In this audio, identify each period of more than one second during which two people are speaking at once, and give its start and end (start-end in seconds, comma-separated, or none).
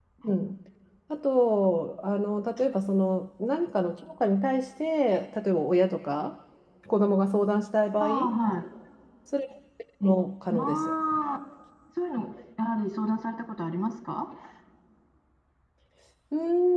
none